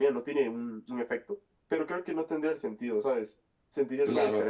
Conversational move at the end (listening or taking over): taking over